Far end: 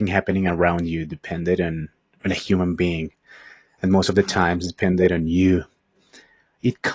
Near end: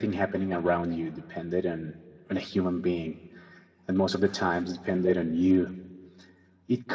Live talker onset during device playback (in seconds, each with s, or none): none